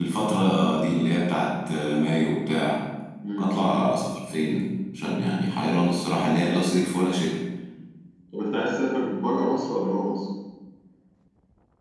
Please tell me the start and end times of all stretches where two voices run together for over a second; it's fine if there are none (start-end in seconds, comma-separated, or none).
none